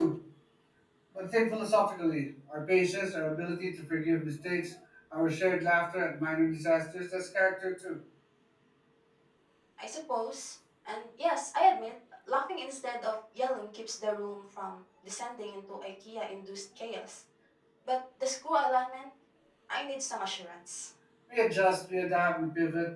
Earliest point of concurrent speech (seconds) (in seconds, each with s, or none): none